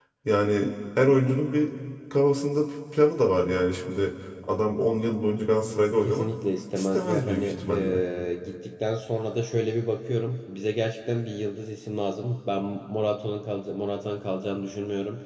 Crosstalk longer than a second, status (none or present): present